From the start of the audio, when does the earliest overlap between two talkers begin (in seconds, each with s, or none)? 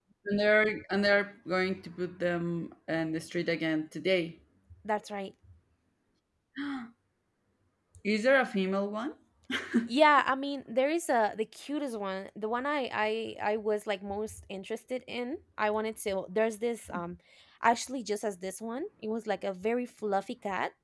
none